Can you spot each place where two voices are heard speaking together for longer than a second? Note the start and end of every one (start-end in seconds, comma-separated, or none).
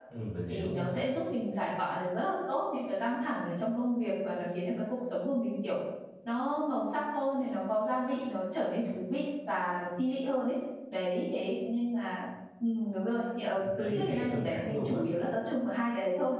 13.6-15.0